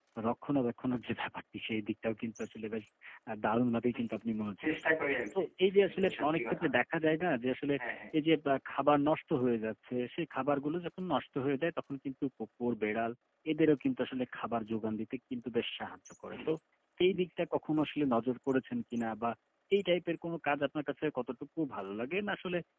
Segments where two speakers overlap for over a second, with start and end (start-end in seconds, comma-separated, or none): 5.4-6.6